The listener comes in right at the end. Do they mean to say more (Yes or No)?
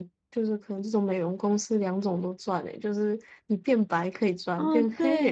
Yes